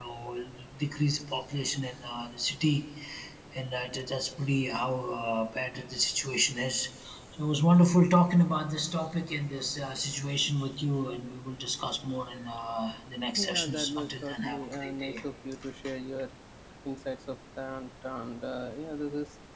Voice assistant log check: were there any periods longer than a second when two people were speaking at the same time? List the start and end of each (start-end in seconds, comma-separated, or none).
13.4-15.2